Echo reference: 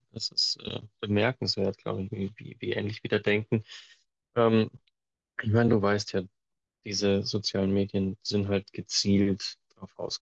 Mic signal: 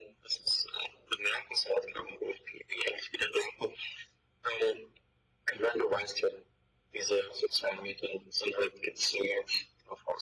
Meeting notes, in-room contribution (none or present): none